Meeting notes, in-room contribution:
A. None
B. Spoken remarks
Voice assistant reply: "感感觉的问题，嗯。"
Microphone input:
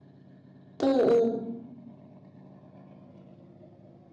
B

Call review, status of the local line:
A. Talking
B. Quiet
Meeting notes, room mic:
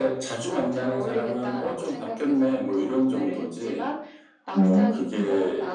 A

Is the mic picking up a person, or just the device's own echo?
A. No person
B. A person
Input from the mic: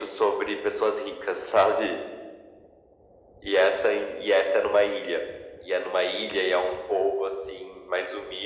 A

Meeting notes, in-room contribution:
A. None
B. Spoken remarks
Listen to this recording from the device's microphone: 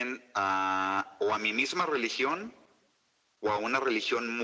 A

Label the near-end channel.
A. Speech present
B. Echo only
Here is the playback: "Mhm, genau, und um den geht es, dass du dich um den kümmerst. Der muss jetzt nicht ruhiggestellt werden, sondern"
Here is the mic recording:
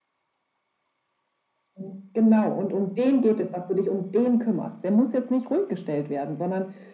B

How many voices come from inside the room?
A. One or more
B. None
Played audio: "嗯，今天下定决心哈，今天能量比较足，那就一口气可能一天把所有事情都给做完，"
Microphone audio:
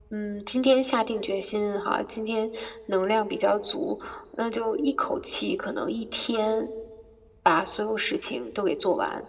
B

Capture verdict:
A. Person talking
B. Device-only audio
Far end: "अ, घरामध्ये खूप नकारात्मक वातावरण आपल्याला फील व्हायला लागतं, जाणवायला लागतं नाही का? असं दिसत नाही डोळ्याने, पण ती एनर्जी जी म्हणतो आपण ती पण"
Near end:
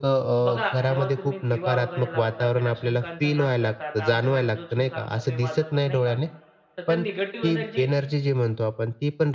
A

